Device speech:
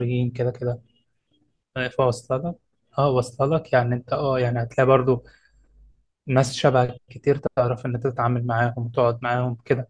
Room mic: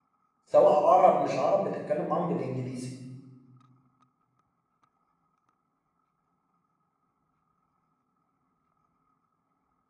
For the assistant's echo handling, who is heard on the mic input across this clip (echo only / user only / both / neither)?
user only